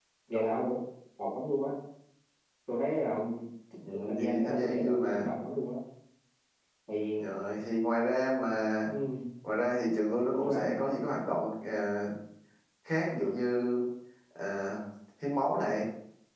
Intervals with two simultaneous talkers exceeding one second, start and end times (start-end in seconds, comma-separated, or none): 4.1-5.3